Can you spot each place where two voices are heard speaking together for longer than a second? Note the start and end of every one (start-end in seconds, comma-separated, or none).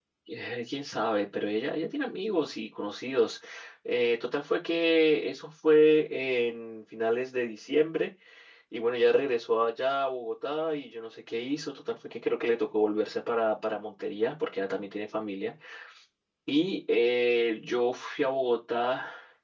none